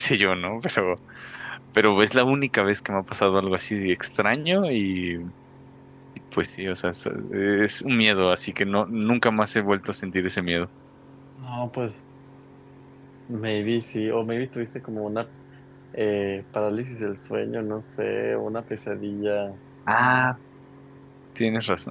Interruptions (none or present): none